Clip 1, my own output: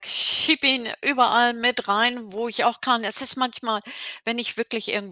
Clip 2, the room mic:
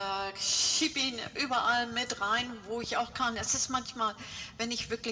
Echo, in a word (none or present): present